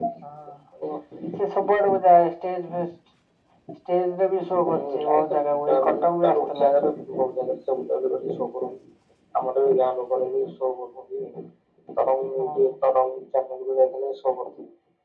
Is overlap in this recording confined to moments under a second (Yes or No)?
No